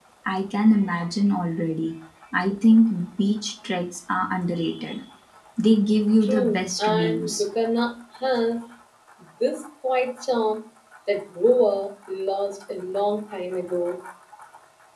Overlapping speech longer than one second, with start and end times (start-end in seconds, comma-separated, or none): 6.2-7.4